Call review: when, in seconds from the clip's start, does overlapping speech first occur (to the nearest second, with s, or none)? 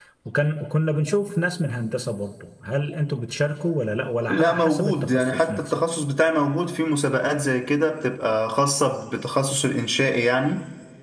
4 s